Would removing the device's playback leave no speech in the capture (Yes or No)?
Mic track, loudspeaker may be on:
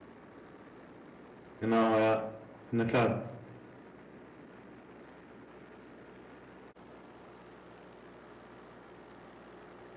No